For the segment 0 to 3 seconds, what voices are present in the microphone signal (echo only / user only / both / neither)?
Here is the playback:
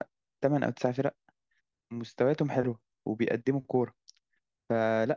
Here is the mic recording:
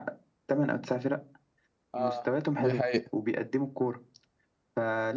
both